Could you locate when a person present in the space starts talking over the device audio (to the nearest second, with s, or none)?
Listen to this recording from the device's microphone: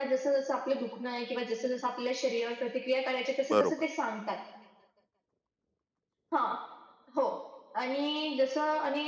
3 s